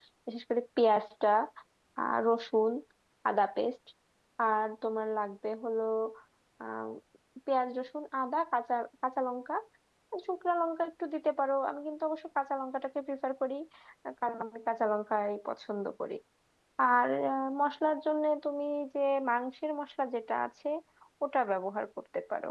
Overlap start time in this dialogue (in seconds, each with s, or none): none